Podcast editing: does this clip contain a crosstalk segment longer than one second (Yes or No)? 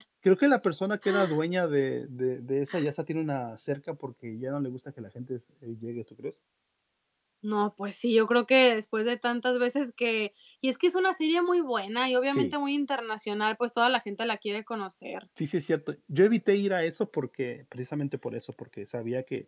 No